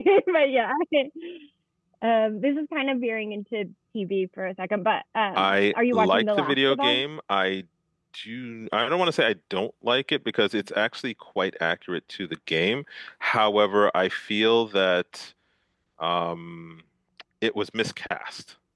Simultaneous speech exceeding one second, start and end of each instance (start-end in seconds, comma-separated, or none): 5.4-7.0